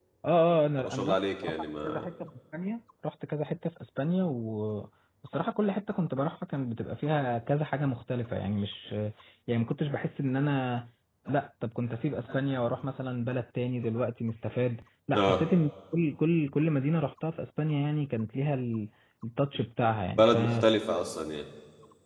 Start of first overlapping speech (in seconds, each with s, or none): 0.8 s